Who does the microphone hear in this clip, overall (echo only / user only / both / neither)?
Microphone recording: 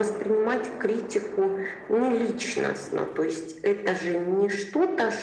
echo only